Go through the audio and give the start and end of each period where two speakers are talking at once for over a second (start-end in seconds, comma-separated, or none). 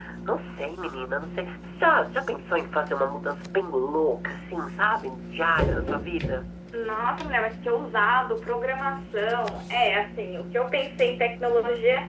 none